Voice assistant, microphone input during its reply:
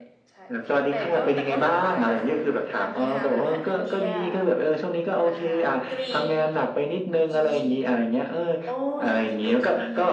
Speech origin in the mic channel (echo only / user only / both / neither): both